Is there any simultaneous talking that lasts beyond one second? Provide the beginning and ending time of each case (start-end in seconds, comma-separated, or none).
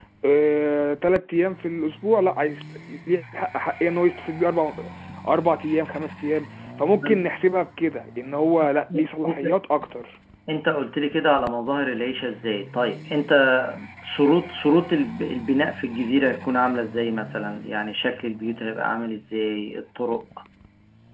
none